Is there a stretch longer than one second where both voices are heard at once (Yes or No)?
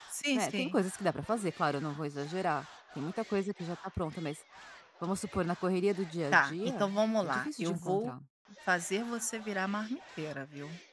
Yes